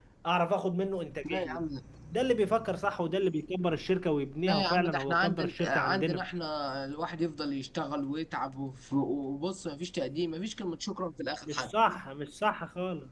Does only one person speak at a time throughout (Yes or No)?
No